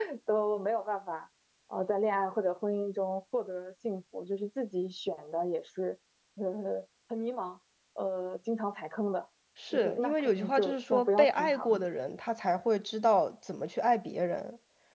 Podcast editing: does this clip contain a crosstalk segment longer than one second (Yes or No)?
Yes